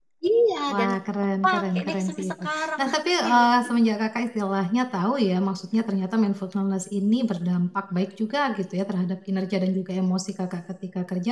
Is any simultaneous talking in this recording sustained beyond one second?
Yes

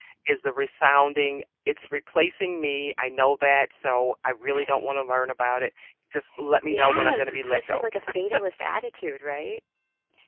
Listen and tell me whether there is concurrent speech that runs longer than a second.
Yes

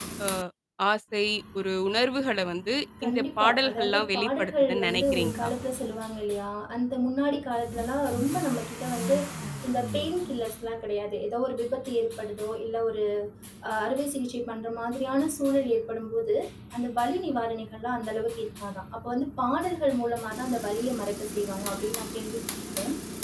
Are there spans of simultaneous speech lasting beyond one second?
Yes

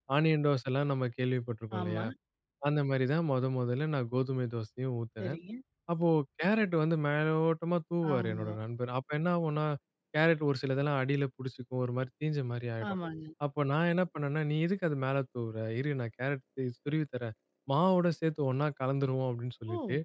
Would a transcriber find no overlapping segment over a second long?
Yes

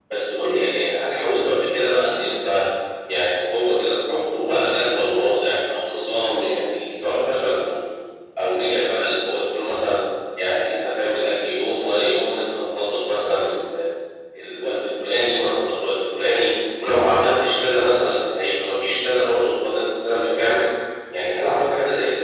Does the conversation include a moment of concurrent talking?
No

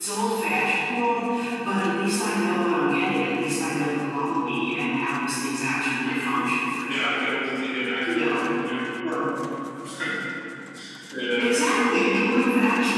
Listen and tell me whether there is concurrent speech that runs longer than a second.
No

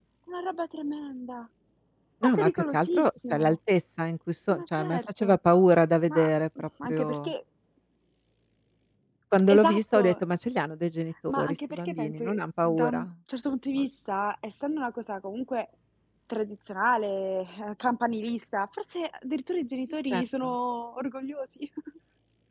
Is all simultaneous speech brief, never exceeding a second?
No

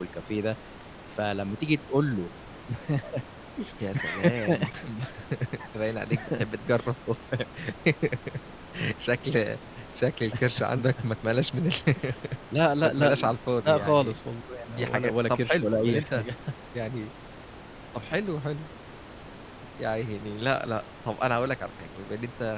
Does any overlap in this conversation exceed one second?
Yes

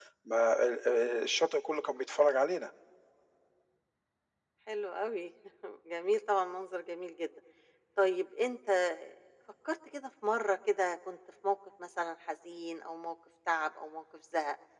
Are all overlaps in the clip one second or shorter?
Yes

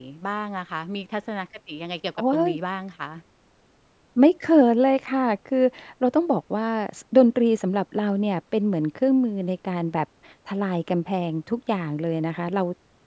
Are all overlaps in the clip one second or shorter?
Yes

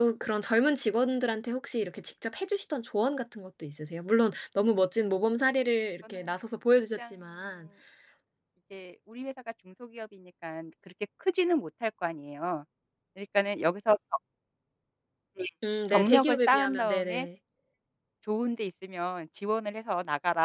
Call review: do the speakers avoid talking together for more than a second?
No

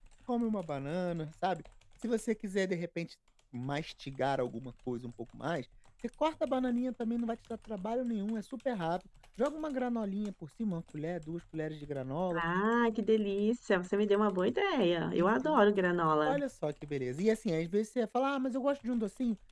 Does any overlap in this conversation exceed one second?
No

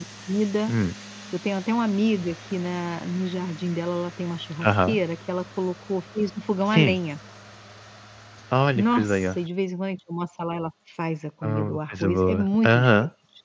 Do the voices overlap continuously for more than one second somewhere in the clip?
Yes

